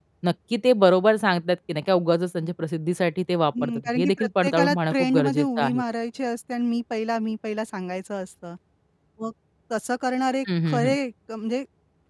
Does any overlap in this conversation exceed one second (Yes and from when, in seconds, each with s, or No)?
Yes, from 3.6 s